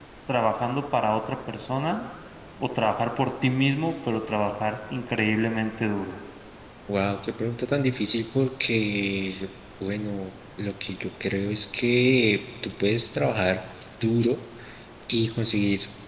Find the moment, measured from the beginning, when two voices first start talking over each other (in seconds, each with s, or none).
none